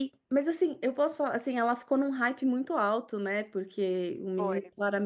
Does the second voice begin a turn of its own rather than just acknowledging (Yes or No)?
No